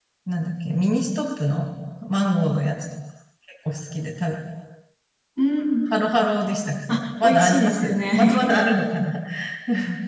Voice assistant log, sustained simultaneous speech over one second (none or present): present